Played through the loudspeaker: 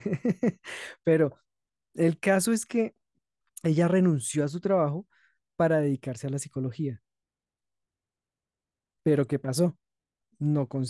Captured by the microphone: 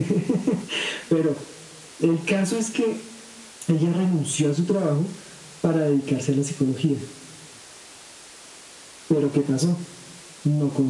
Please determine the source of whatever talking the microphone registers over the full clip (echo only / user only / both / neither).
echo only